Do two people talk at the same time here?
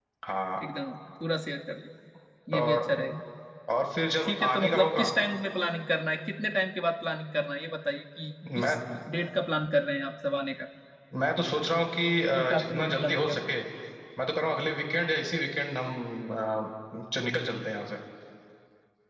Yes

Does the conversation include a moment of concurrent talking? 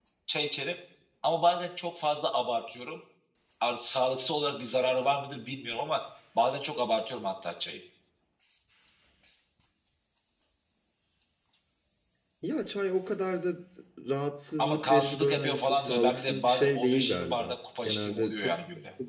Yes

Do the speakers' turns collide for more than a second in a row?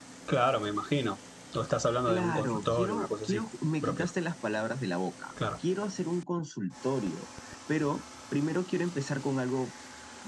Yes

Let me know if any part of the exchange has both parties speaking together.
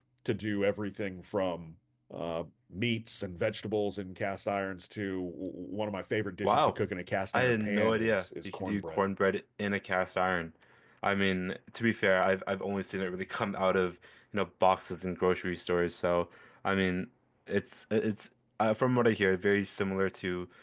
Yes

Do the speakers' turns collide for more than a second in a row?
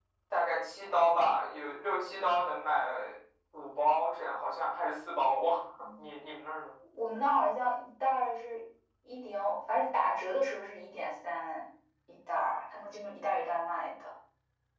No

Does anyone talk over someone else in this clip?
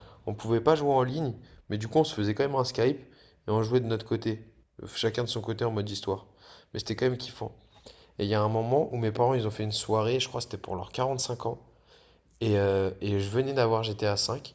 No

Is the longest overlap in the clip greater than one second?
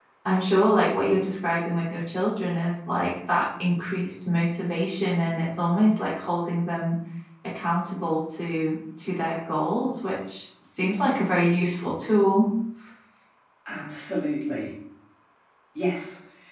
No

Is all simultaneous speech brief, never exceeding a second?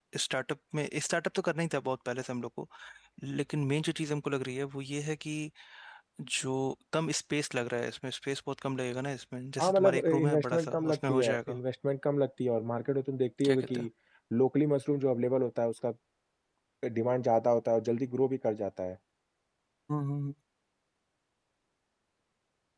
No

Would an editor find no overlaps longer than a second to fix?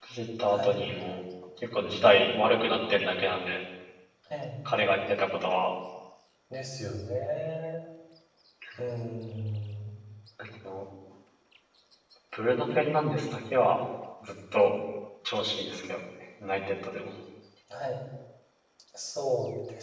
Yes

